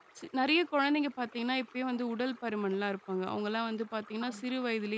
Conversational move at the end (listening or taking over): listening